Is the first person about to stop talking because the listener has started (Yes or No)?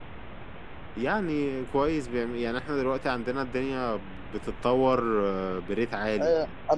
Yes